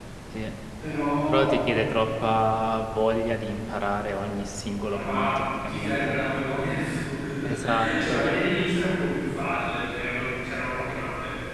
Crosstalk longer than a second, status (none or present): present